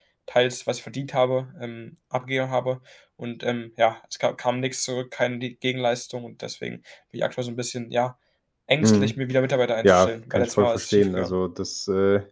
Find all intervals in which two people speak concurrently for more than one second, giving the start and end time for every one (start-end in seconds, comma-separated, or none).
9.8-11.3